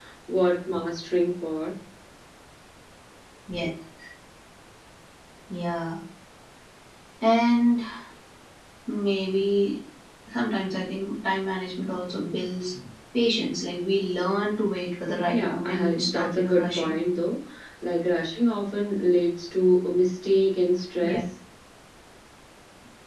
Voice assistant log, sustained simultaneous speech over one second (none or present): present